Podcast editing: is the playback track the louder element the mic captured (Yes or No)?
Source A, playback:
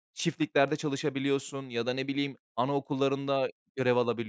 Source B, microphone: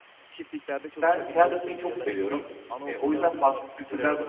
No